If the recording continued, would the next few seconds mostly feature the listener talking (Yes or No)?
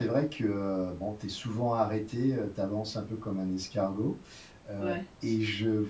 No